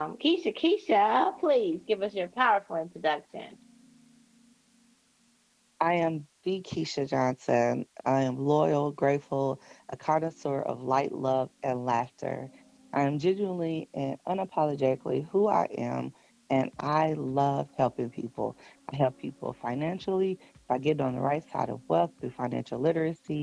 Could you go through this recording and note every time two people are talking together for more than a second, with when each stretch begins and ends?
none

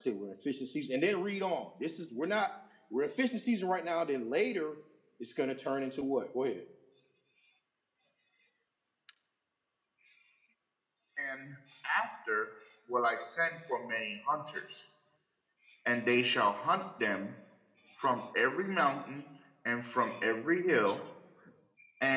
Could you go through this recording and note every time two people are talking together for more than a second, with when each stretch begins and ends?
none

